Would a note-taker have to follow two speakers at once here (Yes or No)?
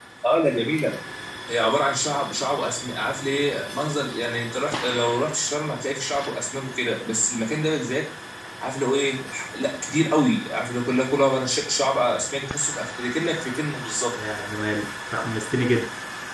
No